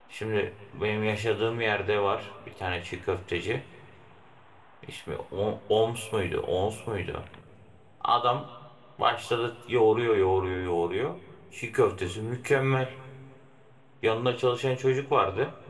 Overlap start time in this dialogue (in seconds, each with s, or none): none